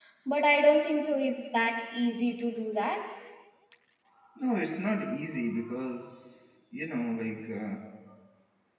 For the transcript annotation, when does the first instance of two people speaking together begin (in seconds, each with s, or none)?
none